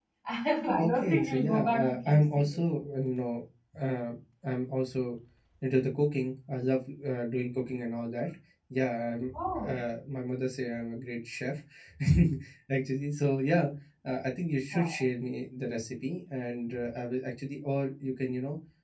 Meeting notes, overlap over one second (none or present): present